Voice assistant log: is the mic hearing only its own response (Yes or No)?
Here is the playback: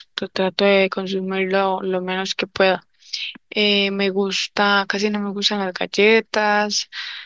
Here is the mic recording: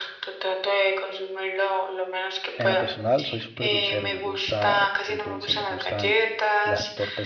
No